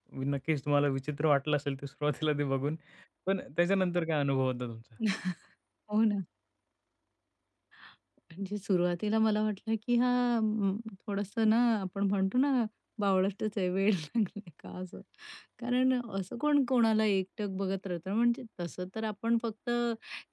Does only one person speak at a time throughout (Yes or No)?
Yes